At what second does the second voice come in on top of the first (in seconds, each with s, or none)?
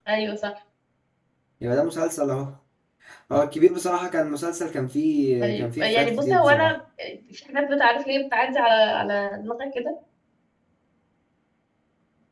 5.4 s